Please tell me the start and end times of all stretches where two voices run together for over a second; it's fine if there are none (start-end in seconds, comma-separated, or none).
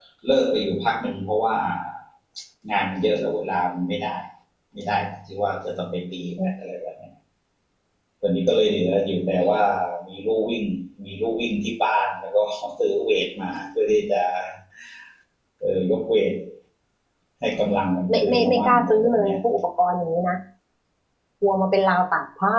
18.1-19.4